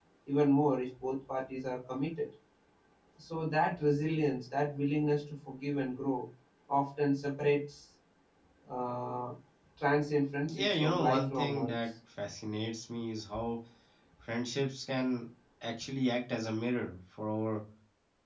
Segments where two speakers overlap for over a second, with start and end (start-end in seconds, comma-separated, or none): 10.5-11.8